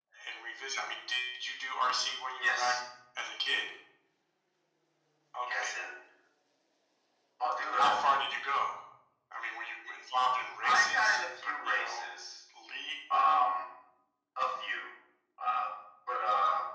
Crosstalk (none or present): present